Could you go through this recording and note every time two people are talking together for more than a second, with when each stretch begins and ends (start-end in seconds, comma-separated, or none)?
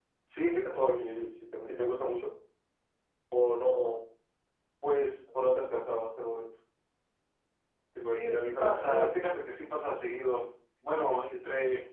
8.0-10.0